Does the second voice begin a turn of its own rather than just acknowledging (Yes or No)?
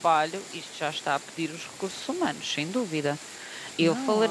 Yes